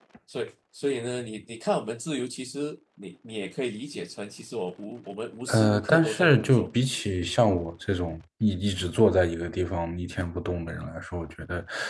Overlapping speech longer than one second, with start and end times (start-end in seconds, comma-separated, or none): 5.5-6.7